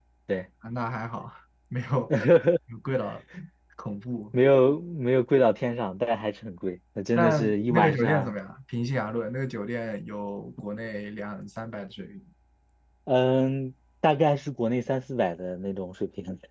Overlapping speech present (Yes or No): Yes